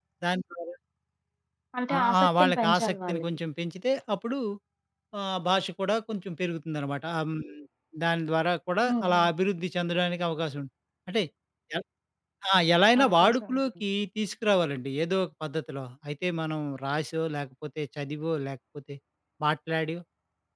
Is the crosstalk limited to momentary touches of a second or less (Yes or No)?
No